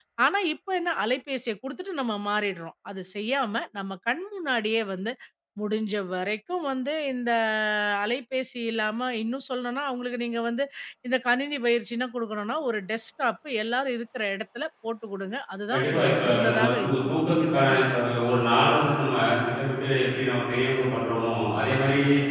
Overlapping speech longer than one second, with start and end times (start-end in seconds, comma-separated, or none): 15.7-18.0